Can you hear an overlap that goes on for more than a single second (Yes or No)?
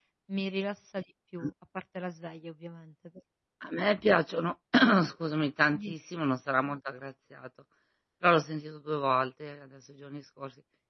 No